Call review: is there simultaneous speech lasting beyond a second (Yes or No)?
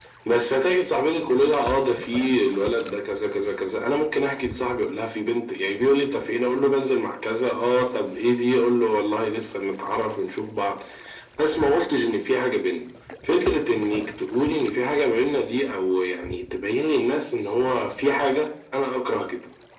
No